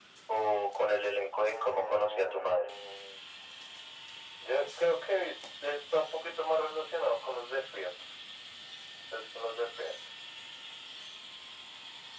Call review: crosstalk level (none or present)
present